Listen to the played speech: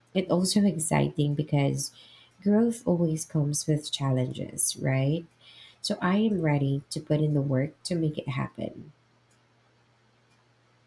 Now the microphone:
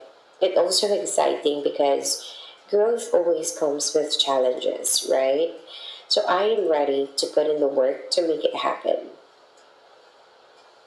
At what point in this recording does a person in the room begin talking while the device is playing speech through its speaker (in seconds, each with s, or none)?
none